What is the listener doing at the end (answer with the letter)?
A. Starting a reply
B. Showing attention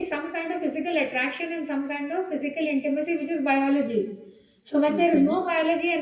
B